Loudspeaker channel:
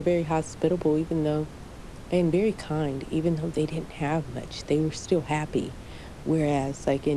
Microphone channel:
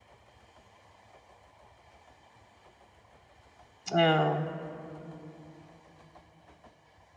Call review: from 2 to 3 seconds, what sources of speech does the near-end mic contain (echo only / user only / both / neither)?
neither